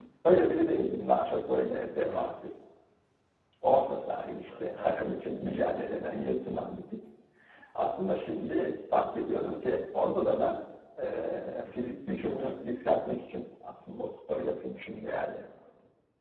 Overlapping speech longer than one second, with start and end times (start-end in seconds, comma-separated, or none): none